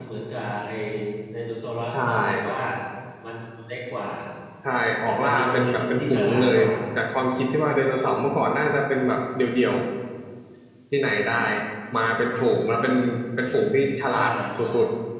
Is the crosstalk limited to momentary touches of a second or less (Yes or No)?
No